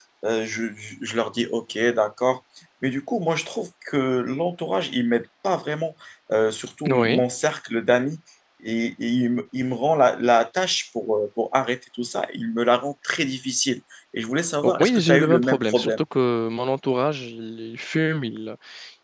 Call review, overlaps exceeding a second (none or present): present